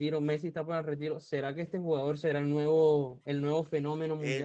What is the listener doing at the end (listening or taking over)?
taking over